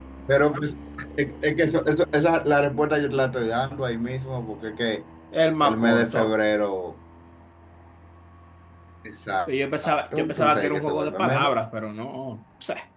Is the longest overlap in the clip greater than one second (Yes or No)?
Yes